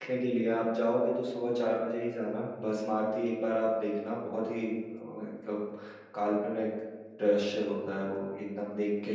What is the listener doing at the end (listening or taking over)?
taking over